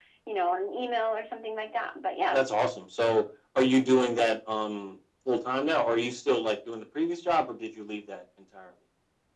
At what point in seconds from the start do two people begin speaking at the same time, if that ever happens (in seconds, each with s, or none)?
none